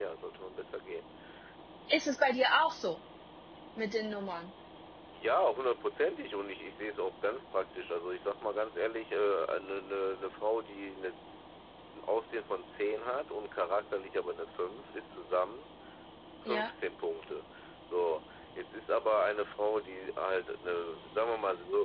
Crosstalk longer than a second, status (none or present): none